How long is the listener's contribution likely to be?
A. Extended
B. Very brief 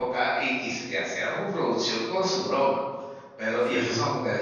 B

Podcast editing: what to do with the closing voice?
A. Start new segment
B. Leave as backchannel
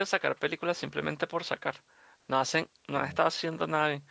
B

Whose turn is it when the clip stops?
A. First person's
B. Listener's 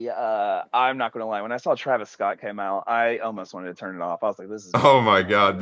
B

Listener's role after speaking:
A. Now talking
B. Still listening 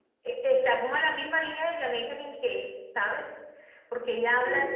B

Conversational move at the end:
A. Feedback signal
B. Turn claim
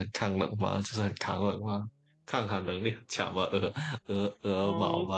B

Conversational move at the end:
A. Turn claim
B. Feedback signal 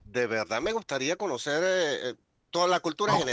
B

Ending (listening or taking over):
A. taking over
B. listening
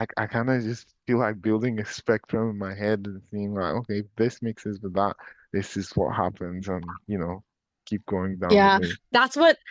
A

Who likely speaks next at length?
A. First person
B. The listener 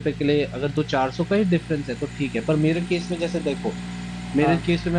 A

